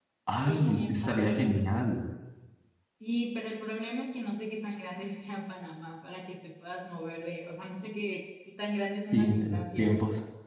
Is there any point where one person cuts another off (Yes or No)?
Yes